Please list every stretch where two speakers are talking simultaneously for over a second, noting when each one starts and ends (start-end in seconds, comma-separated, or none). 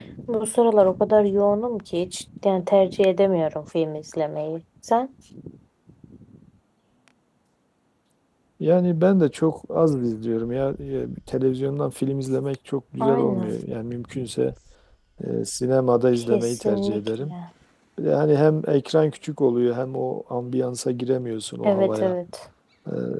16.1-17.3